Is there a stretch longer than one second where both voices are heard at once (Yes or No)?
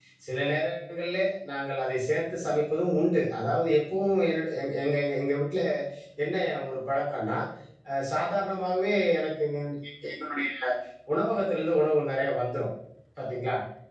No